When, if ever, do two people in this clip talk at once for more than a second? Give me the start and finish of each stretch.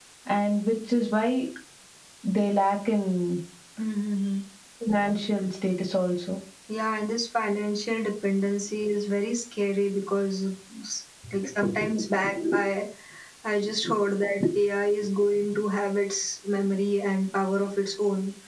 none

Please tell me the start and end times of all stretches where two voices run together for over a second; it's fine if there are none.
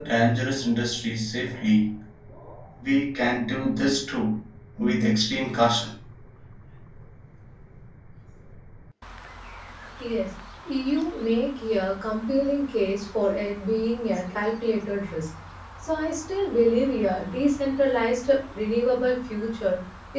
none

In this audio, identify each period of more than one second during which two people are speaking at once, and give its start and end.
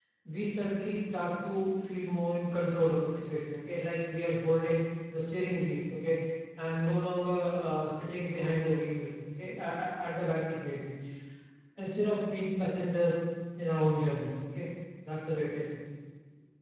none

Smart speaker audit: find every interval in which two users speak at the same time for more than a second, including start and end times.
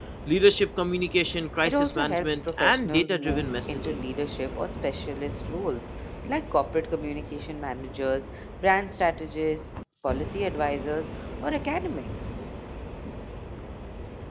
1.6-4.0

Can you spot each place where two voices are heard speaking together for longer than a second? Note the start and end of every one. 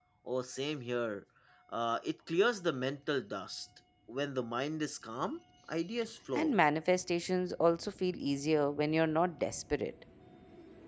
none

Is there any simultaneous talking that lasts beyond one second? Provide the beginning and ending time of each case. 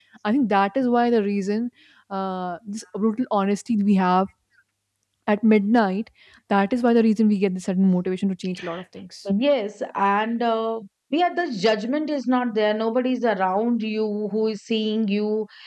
none

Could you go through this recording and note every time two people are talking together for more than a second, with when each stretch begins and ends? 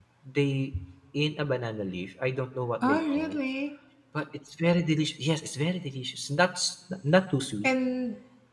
none

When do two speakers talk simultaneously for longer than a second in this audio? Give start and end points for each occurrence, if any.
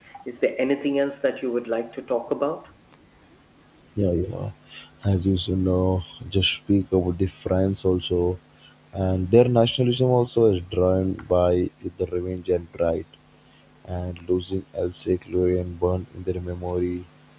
none

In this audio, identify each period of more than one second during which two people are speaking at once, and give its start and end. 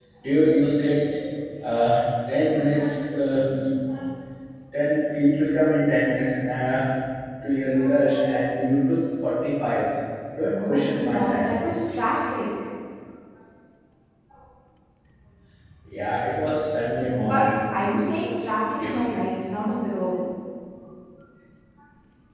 10.6-11.9

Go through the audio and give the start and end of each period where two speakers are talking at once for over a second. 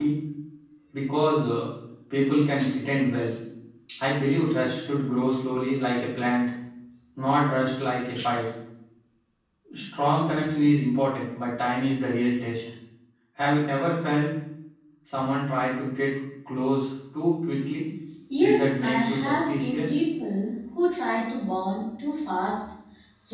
18.4-19.9

